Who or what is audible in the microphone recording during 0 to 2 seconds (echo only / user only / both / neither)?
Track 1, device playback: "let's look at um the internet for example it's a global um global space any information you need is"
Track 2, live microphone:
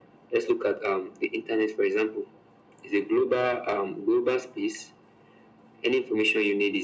echo only